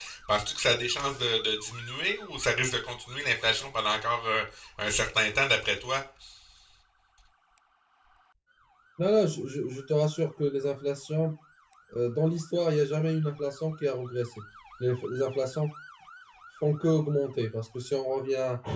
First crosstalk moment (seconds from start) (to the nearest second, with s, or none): none